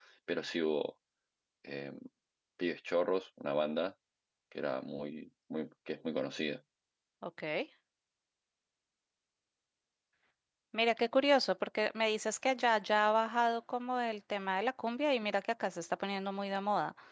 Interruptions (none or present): none